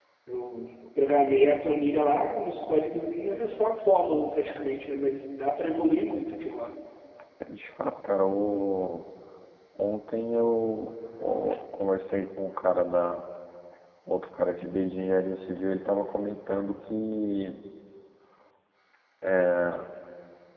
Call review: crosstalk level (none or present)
none